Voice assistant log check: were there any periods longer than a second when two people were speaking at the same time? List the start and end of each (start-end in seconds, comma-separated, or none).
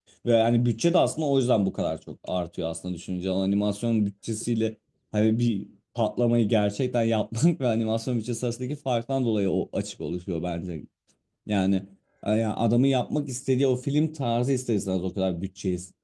none